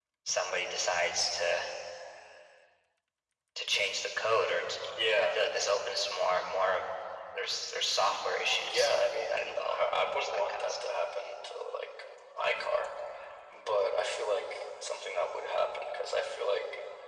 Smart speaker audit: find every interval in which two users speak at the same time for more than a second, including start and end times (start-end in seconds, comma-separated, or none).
9.3-10.9